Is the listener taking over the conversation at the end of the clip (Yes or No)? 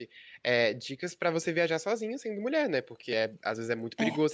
No